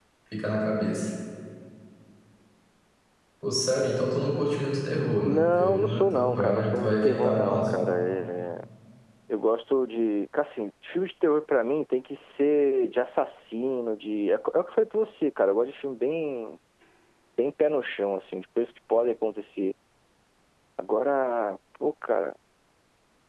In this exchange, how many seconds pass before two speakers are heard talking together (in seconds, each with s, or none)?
5.2 s